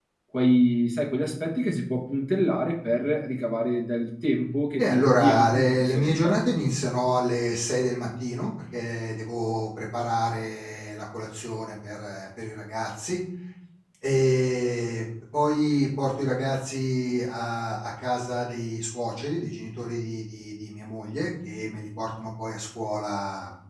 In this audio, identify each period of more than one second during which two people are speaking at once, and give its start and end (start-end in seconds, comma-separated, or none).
4.8-6.4